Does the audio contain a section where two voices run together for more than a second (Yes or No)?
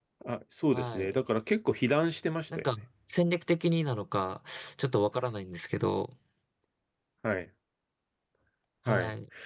No